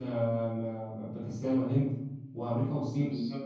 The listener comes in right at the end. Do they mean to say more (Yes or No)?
No